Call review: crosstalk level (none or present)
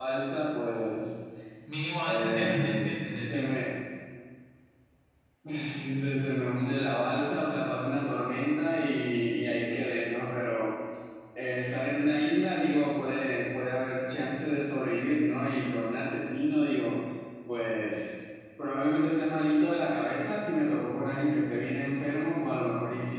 present